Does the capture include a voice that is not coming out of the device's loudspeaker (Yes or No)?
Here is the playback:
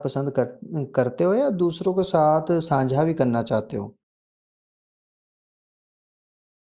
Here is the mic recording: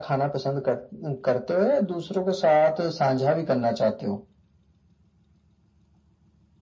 No